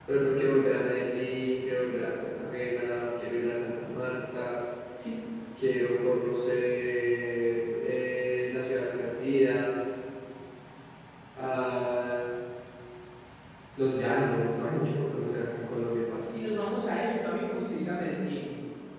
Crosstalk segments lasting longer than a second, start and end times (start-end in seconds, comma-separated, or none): none